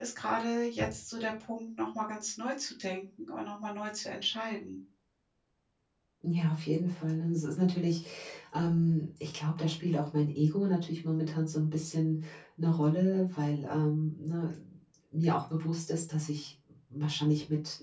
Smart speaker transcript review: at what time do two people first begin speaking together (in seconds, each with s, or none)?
none